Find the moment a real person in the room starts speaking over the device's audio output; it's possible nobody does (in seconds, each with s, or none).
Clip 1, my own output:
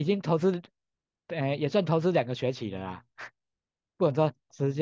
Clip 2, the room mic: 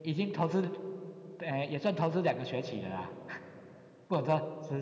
none